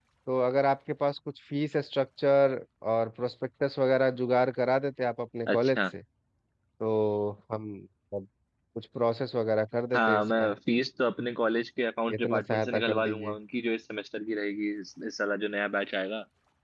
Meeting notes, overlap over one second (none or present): present